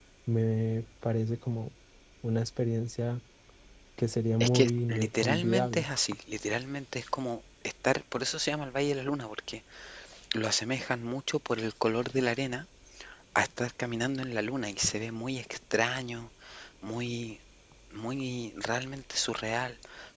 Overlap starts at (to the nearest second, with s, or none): 4 s